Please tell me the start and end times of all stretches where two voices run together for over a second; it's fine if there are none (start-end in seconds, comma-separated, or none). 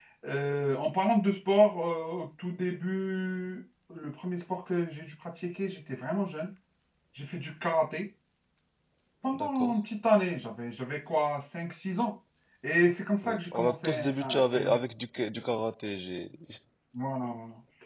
13.2-14.8